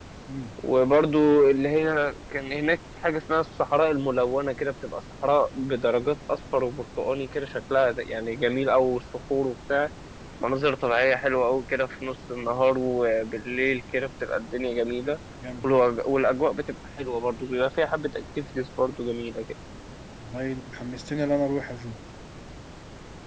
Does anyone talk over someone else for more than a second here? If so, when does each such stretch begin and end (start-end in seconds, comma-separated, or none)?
none